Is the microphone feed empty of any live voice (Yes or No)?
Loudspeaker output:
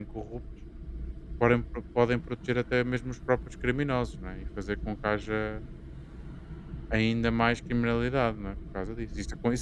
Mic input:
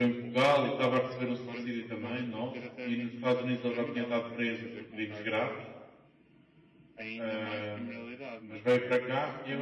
No